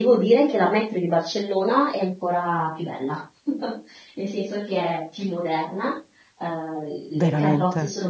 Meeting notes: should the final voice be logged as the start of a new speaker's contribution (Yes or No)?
No